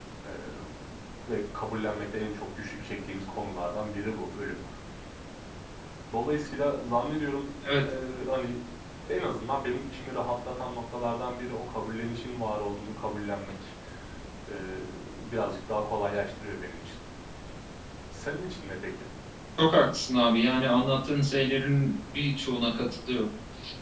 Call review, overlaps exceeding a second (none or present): none